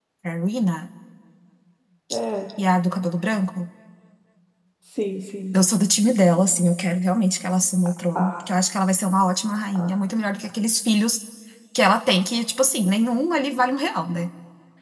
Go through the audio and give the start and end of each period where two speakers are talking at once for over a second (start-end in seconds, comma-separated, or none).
none